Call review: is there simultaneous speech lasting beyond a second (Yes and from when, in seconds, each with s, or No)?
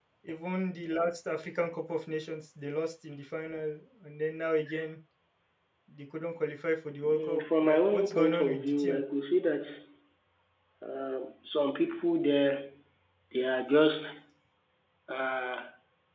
Yes, from 7.0 s